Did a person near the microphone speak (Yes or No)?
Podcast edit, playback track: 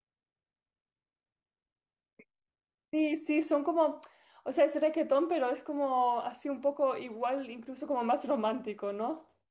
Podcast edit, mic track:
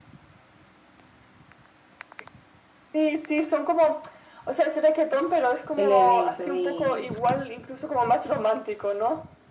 Yes